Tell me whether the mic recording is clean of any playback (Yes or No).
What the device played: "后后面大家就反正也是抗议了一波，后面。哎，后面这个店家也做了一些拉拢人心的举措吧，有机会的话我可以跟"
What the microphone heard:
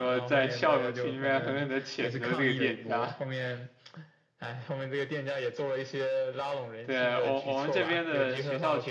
No